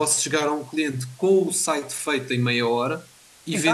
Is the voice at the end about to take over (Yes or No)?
No